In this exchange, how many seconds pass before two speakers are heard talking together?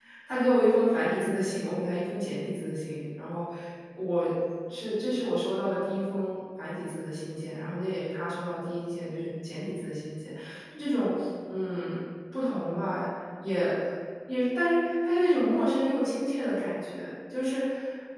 none

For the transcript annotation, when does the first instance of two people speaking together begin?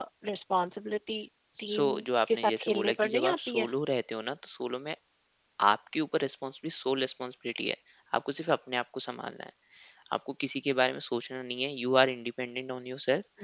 2 s

